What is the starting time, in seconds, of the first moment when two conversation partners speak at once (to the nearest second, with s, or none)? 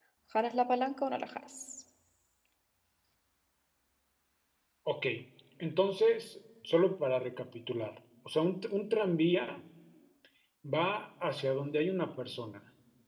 none